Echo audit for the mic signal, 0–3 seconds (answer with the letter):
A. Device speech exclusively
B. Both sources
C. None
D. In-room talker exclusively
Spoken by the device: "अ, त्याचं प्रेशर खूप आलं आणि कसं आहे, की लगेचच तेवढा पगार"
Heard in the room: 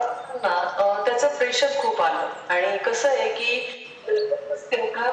A